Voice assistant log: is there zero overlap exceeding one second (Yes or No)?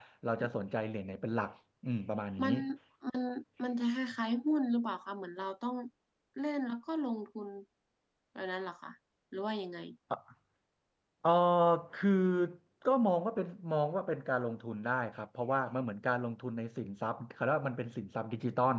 Yes